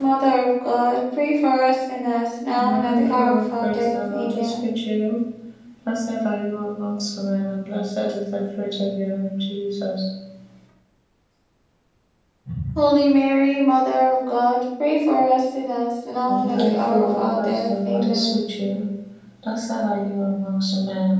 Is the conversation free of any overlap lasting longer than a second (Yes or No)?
No